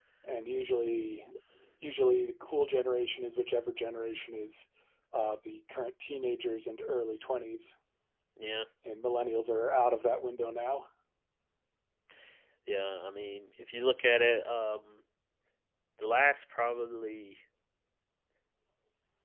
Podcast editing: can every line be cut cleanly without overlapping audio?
Yes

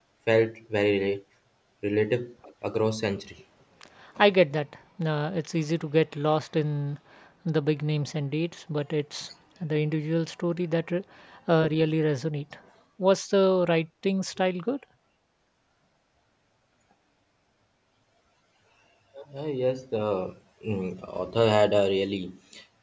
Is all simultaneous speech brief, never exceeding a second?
Yes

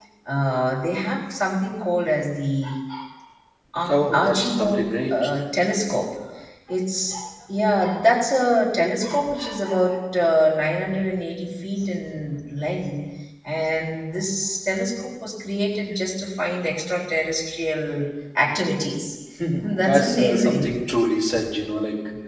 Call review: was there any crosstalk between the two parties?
Yes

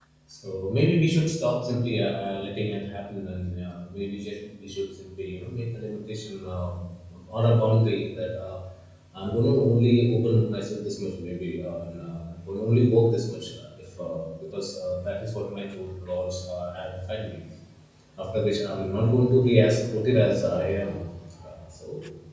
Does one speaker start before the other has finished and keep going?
No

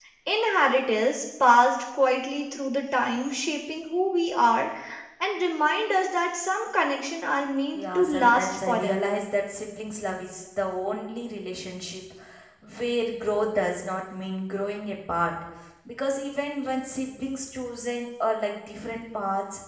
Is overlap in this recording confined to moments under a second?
No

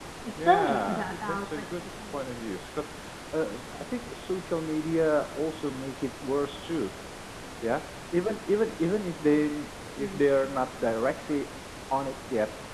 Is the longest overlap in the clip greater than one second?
Yes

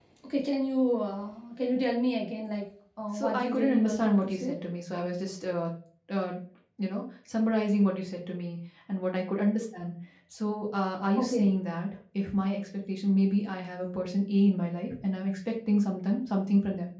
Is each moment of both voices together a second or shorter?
No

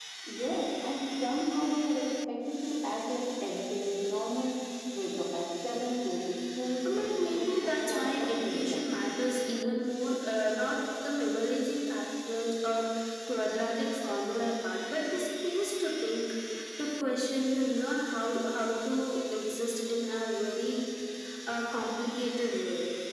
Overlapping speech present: Yes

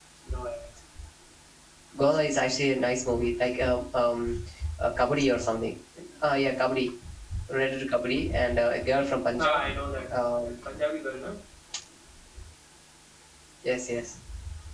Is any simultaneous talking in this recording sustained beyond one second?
No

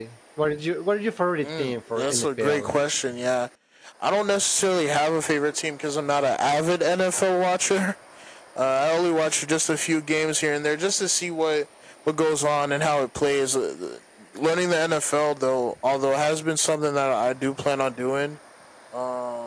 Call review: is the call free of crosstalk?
No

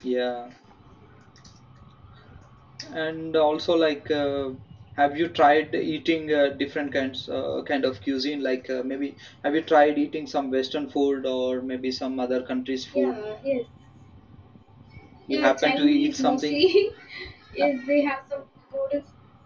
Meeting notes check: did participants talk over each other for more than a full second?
Yes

